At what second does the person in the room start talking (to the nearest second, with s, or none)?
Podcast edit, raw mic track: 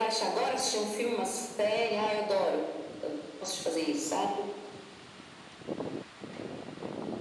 none